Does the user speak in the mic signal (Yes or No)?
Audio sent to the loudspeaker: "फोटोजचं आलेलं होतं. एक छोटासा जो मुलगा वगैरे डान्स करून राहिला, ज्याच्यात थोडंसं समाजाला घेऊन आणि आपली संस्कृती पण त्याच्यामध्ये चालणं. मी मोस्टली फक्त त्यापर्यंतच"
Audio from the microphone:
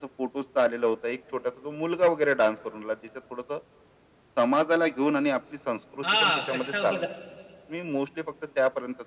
Yes